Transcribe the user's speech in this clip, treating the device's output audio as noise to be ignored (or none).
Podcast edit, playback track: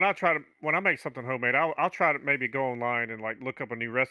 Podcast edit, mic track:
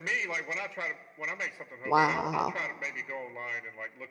wow.